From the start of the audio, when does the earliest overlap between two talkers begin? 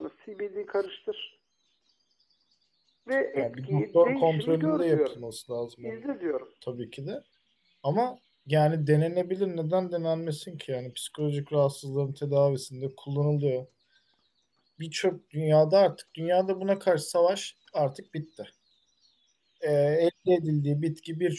3.4 s

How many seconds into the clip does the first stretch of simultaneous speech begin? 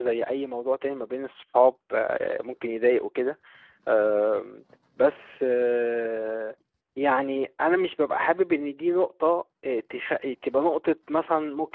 none

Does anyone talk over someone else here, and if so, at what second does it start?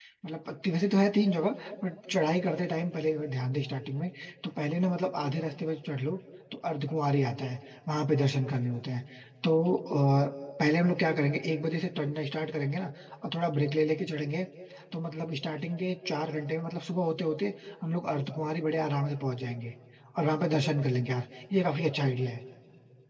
none

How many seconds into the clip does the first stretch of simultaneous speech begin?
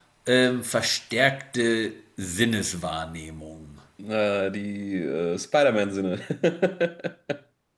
none

